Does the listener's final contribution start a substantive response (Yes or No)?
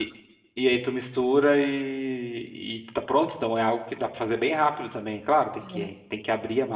No